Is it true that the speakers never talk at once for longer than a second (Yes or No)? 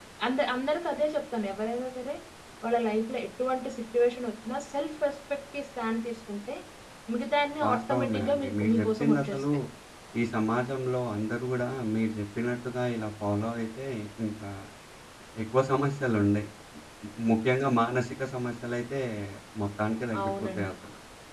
No